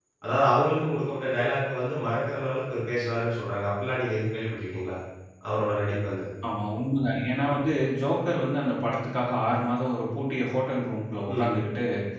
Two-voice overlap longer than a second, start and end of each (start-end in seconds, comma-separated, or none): none